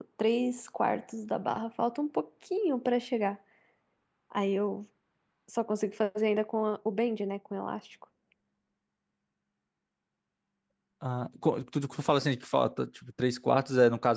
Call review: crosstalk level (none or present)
none